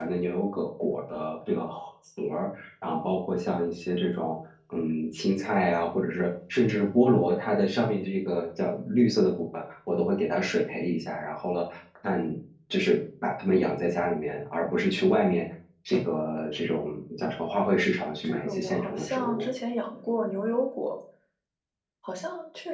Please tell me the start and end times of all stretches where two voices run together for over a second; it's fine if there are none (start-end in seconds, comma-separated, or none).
18.2-19.4